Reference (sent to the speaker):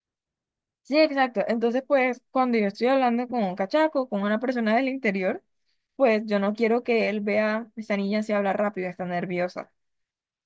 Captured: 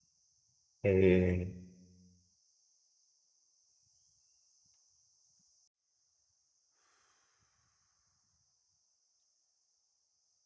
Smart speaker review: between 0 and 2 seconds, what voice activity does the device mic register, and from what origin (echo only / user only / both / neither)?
user only